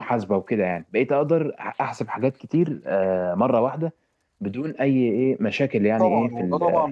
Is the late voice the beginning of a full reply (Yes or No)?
Yes